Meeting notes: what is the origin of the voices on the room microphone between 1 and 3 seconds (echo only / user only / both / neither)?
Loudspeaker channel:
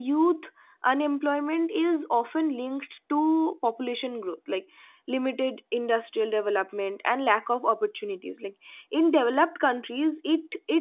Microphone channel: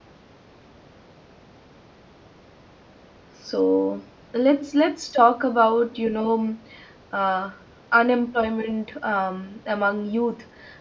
neither